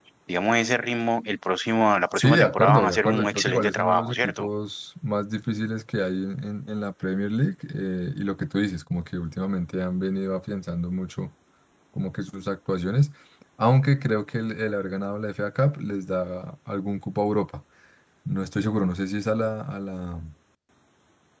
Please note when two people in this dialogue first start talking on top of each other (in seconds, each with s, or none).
2.2 s